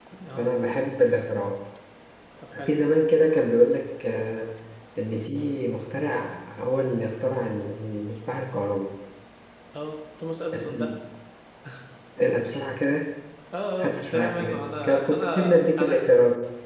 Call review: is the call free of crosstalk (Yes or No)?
No